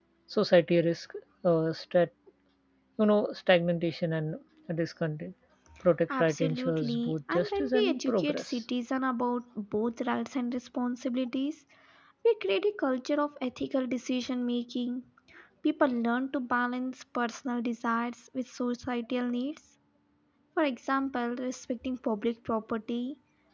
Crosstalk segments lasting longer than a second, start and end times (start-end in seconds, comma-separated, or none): 6.2-8.6